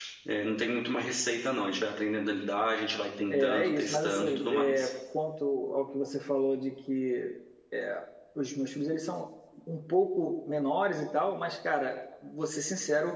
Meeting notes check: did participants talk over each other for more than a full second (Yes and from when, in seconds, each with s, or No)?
Yes, from 3.3 s